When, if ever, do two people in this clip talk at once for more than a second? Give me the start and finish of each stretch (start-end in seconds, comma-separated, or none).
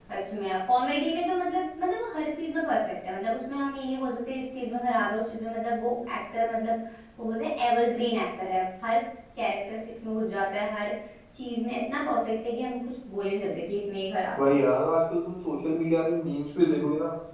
none